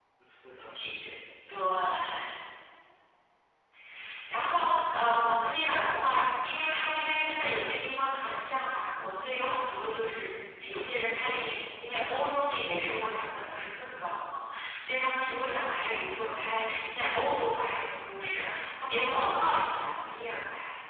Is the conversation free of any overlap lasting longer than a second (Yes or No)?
Yes